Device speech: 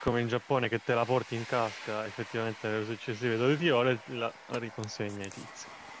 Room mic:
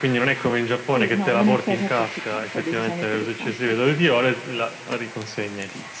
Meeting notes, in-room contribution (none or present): present